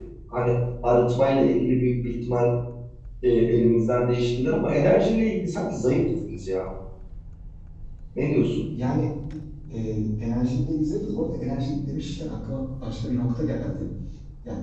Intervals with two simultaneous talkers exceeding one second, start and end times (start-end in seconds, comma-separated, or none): none